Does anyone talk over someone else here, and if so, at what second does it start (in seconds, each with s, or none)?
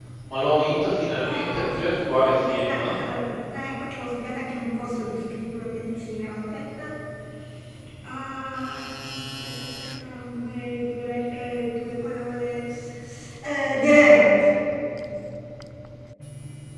1.2 s